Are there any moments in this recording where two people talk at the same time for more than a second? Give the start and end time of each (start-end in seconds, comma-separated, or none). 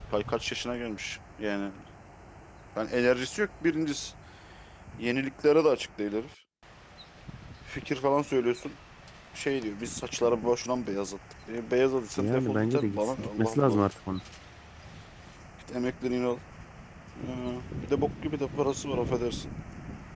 12.2-13.8